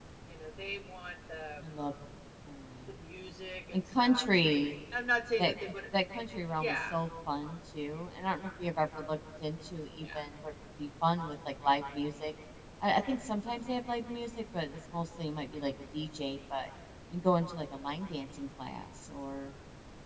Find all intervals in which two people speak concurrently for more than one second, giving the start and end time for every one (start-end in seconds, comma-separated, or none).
none